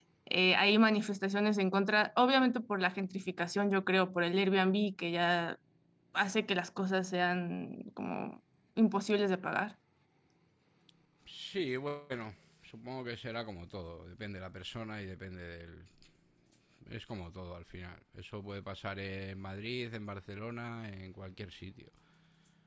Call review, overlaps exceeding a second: none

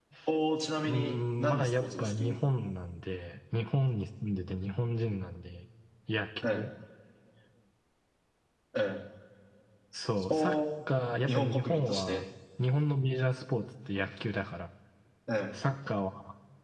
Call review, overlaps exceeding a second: present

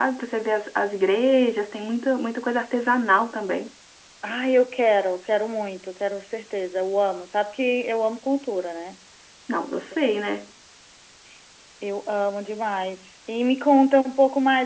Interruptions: none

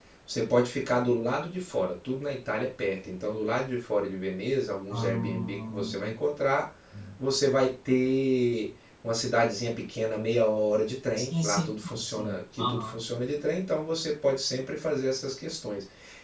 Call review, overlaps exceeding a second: present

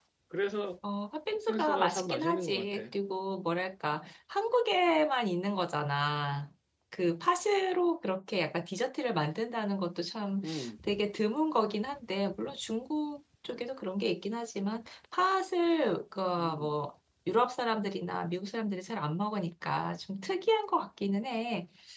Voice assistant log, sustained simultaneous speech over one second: present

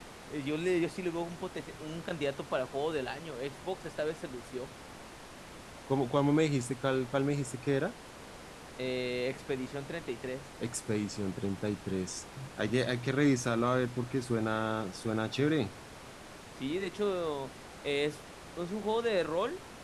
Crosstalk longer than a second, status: none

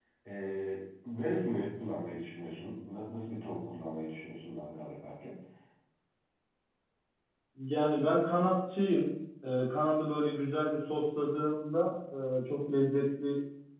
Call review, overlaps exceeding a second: none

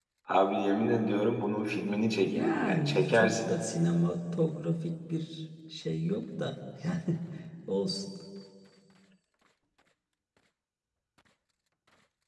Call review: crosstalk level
present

